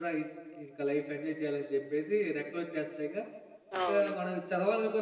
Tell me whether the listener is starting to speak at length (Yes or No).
No